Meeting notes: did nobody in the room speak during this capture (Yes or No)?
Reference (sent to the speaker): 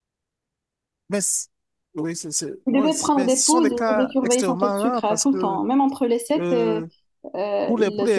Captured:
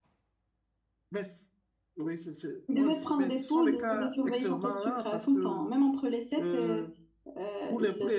Yes